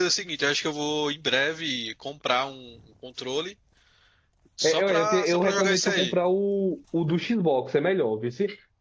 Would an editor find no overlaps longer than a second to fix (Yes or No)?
No